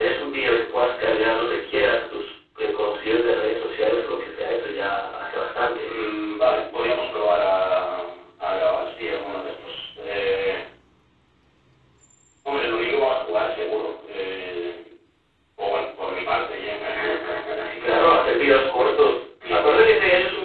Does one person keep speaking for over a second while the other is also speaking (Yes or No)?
No